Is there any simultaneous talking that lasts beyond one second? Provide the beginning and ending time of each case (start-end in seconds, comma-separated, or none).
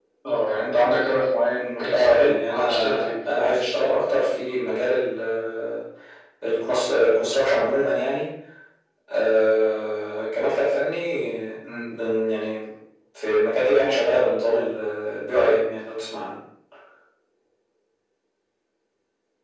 1.9-3.1